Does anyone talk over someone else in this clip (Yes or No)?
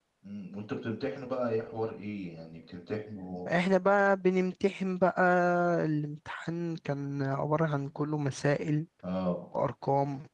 No